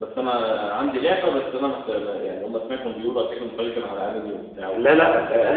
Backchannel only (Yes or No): No